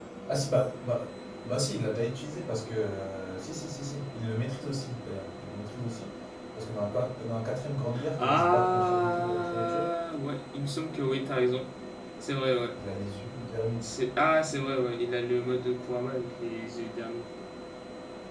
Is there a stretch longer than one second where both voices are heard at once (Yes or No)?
Yes